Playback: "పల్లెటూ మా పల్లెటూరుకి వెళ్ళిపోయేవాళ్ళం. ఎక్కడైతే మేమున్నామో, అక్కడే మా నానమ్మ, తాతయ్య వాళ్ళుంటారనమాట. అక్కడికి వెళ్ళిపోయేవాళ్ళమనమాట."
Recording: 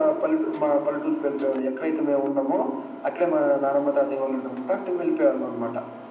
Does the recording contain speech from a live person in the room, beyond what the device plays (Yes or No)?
No